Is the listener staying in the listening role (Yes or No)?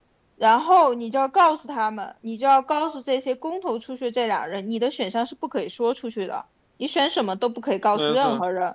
Yes